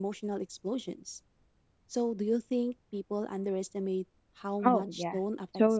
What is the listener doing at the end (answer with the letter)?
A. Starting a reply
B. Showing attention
A